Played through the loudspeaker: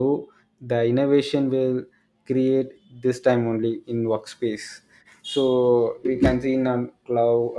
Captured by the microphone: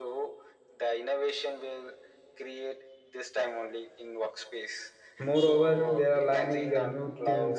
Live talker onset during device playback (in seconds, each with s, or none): 5.3 s